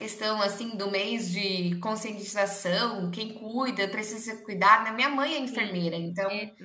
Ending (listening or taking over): taking over